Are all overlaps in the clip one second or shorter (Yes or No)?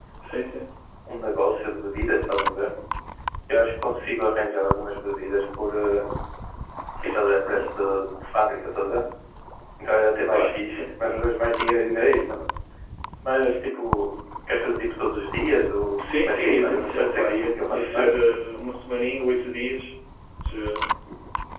No